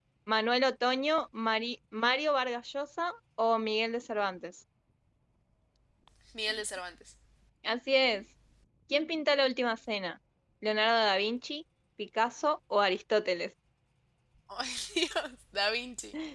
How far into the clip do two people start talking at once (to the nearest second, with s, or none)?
none